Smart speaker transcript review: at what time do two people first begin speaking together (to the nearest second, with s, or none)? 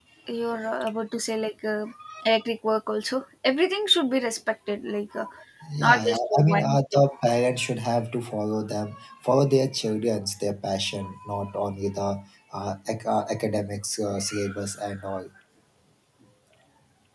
6 s